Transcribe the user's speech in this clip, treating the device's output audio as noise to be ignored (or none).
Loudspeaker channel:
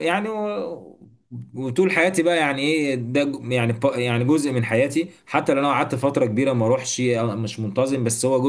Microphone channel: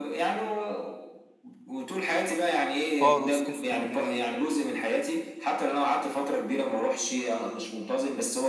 فاروس في اسكندريه